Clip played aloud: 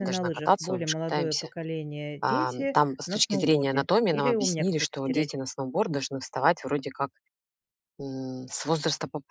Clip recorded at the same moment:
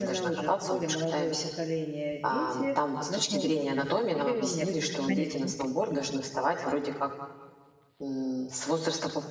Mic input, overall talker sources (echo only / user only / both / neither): both